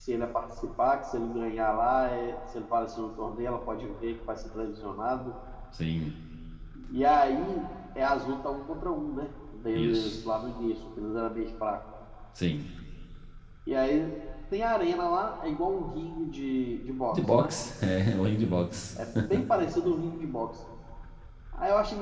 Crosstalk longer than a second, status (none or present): none